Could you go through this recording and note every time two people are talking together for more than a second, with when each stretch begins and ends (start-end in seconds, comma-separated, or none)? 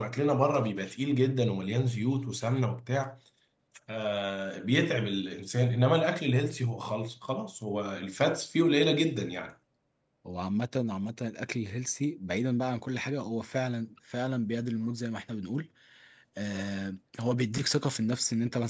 none